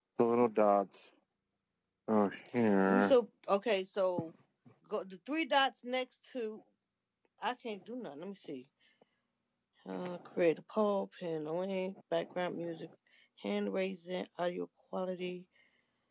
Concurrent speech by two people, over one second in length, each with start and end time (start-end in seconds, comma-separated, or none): none